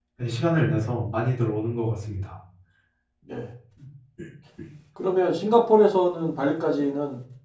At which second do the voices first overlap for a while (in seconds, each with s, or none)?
none